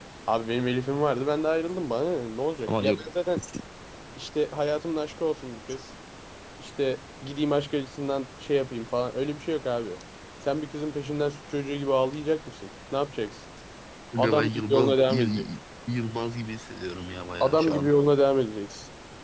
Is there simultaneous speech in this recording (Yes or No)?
Yes